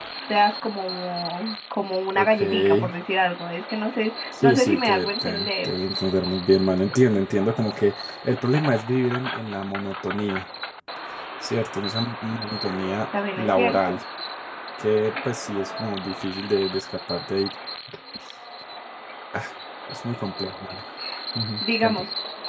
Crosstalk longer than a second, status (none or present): present